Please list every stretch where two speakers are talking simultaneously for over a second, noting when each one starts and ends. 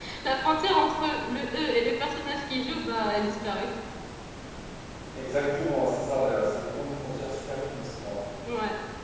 none

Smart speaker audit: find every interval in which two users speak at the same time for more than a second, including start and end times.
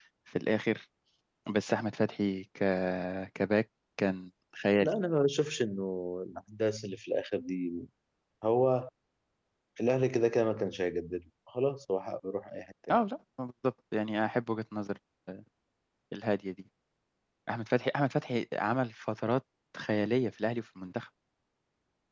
none

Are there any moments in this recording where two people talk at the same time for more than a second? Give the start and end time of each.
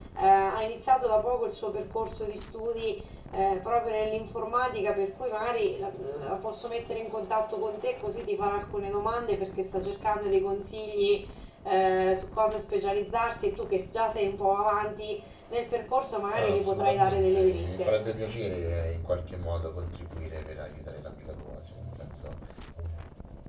16.3-17.9

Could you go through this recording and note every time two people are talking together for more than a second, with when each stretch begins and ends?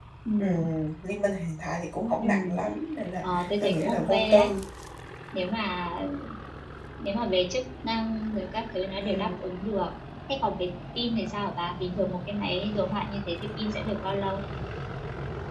3.2-4.5

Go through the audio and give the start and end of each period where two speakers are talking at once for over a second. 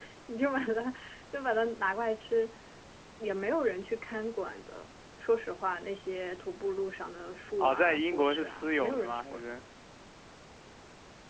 7.6-9.4

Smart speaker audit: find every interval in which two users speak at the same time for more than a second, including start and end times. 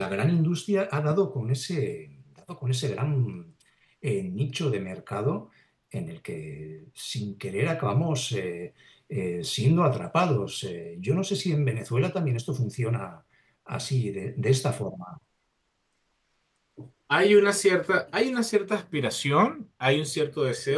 none

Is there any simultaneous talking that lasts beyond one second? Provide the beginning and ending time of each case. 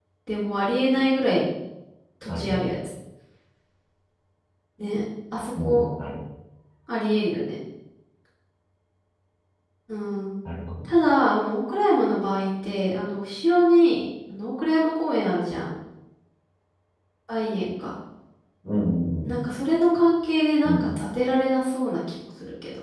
none

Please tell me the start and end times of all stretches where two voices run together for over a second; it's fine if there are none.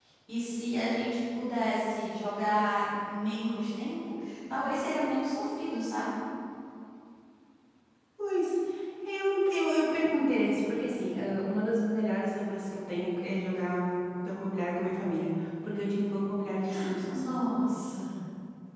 none

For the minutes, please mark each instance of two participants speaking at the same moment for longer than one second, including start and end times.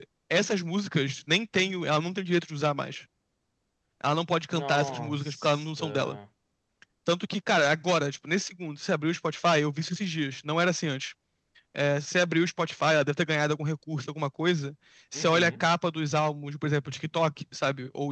4.5-6.2

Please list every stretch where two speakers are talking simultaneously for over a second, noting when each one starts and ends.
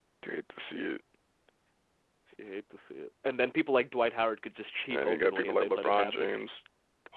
4.9-6.3

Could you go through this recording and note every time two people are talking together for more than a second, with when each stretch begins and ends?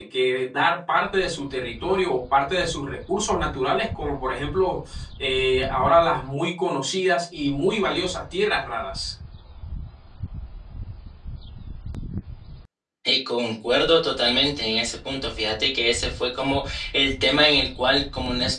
none

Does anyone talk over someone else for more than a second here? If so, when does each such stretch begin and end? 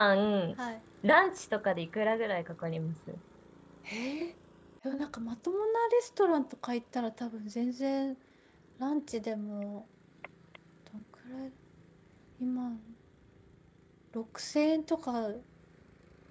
none

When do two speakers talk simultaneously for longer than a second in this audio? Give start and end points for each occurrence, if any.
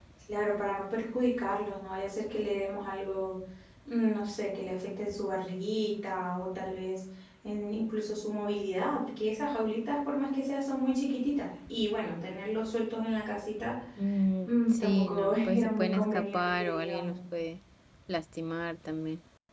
14.4-17.1

